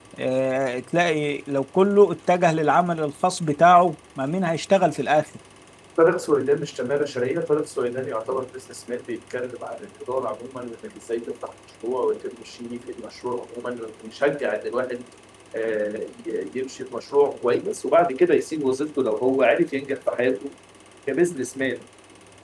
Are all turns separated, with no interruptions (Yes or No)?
Yes